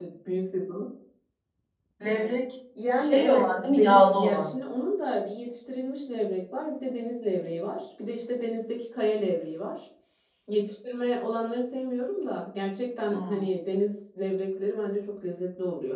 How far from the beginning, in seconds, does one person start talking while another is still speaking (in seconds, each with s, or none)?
3.0 s